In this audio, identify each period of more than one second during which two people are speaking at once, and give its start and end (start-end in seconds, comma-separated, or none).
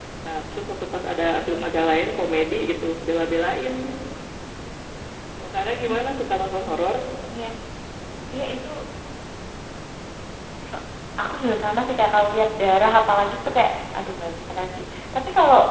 none